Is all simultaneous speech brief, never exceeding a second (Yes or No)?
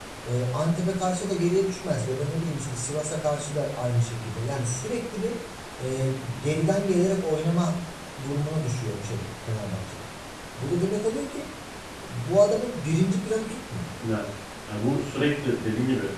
Yes